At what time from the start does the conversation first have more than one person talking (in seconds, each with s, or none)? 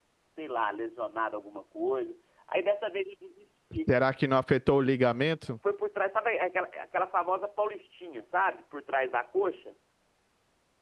none